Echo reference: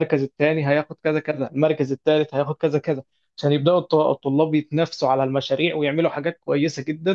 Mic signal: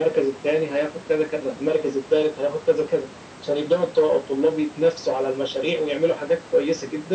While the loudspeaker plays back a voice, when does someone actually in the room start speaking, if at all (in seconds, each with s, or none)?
none